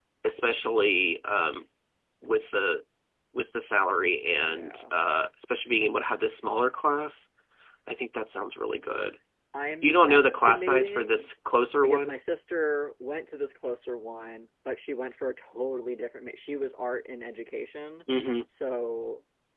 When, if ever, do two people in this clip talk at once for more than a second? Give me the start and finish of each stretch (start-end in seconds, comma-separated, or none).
9.8-11.3